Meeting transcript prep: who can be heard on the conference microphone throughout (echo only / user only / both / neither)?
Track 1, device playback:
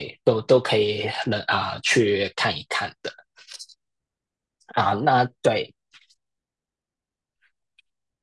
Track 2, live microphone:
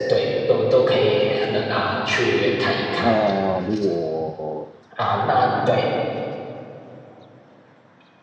both